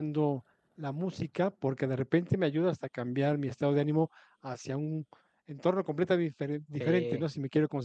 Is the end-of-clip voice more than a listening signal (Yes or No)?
No